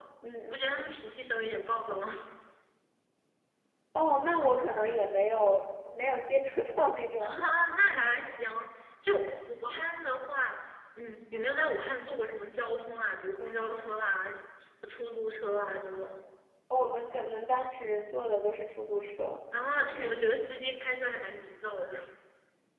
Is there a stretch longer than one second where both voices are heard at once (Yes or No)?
No